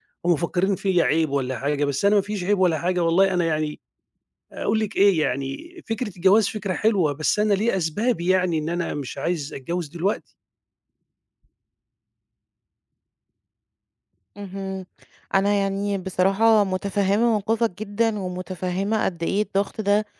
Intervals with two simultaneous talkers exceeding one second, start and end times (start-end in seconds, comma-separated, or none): none